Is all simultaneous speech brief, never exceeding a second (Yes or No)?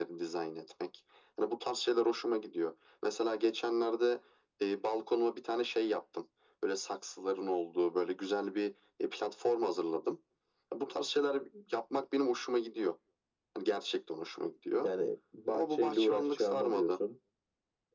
No